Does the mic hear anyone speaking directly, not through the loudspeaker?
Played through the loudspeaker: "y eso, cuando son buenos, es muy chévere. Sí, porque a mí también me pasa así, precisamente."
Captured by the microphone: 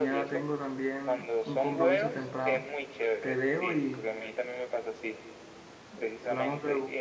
Yes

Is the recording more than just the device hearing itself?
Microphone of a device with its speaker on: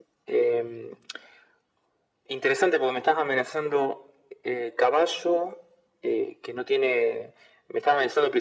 No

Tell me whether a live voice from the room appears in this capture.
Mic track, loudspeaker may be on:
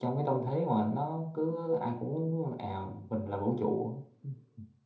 Yes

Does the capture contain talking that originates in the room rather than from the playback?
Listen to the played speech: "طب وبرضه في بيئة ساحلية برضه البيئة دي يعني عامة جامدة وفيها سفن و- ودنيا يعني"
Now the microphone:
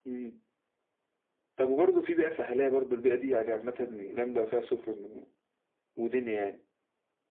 No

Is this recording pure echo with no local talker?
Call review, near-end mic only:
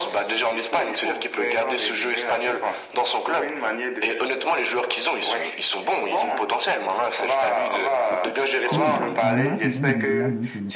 No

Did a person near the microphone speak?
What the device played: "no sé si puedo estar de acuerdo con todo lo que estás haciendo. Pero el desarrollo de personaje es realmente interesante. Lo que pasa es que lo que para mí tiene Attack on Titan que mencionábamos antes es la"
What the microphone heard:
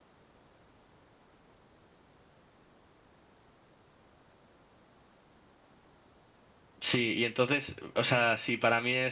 Yes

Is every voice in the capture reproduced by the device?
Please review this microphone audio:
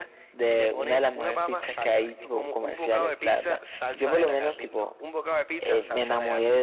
Yes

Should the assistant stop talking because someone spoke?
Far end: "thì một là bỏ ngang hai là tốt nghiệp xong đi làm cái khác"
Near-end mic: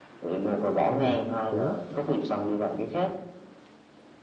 Yes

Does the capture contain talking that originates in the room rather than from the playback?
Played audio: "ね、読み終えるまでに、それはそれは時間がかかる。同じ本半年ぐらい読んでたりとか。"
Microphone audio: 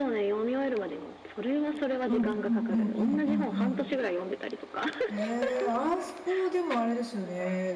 Yes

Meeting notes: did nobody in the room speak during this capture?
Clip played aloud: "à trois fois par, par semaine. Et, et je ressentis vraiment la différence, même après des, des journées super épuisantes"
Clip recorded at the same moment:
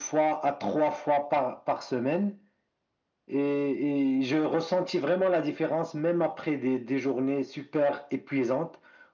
Yes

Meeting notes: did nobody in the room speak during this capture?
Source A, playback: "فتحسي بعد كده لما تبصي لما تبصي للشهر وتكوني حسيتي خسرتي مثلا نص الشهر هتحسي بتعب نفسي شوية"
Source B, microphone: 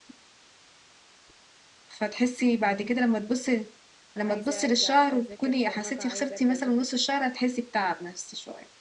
No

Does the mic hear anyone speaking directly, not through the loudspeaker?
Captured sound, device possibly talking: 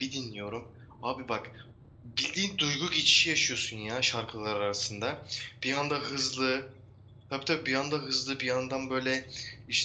Yes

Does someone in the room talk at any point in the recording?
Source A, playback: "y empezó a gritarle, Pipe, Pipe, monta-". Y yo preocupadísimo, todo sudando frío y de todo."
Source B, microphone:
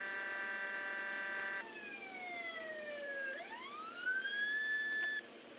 No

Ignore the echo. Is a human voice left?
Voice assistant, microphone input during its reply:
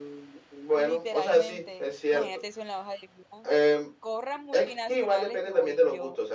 Yes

